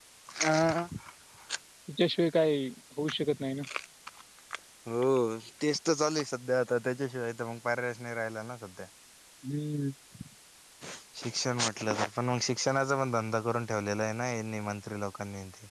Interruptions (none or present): none